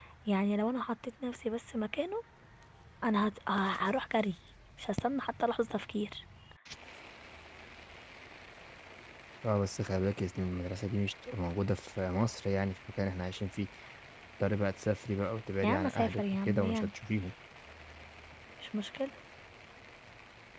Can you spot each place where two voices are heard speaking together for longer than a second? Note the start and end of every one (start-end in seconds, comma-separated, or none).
15.6-16.9